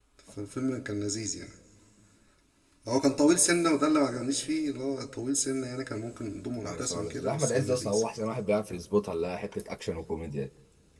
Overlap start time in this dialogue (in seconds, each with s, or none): 6.6 s